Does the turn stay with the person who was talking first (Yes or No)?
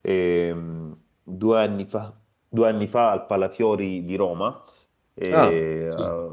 Yes